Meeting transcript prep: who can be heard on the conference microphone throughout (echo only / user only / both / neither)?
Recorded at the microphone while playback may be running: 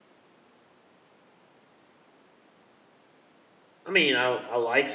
user only